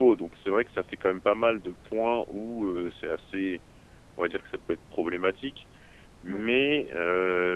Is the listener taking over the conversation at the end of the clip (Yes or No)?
No